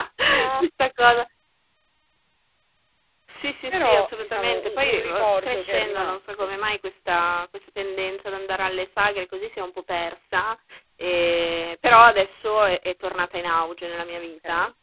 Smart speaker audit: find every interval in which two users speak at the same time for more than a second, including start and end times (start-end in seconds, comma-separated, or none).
3.7-6.5